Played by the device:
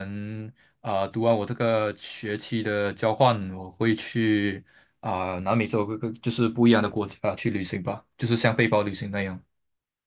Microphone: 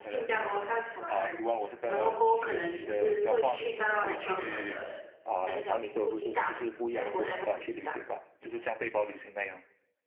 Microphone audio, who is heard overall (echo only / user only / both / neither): both